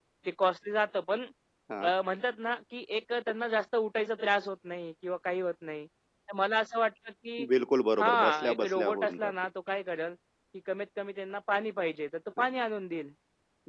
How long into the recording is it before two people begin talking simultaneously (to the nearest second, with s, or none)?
8 s